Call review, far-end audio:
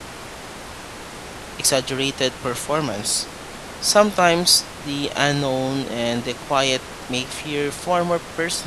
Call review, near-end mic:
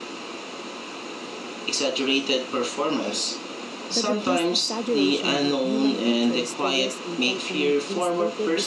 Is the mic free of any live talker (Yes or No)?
No